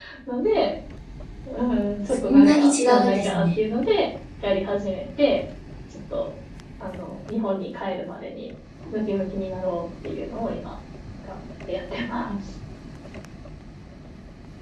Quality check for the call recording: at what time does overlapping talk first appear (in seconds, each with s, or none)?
2.2 s